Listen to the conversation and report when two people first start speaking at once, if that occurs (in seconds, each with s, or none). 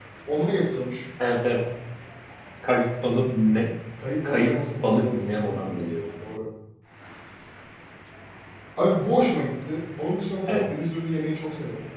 4.2 s